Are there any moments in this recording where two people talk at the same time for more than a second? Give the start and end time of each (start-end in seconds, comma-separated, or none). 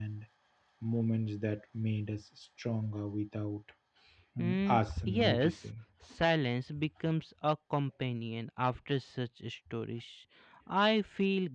4.4-5.7